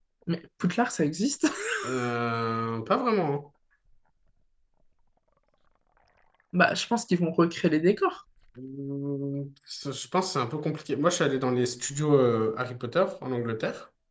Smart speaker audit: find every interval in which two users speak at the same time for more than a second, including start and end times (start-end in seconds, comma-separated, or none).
none